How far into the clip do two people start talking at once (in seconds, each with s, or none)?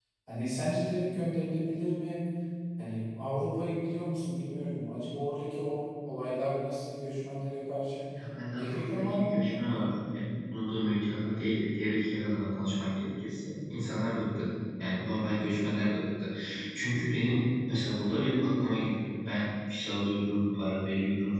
8.5 s